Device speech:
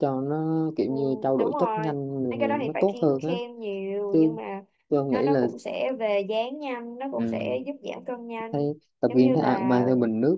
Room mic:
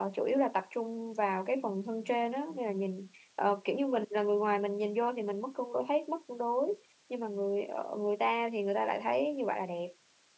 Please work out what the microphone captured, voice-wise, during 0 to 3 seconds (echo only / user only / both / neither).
user only